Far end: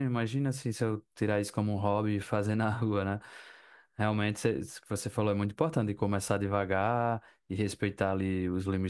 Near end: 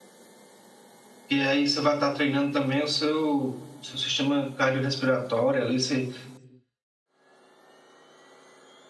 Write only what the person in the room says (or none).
E aí você vai estar treinando também o seu, seu sistema cardiorrespiratório ali, você,